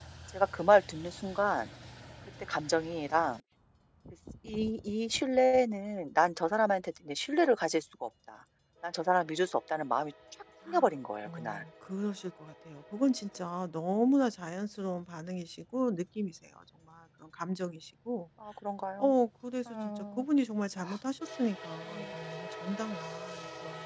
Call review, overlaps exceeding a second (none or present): none